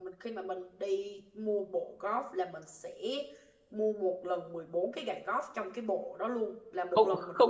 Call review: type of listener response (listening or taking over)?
taking over